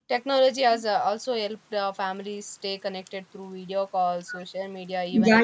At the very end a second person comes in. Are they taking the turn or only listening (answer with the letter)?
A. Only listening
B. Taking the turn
B